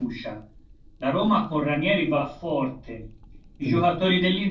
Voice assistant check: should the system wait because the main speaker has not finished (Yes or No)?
Yes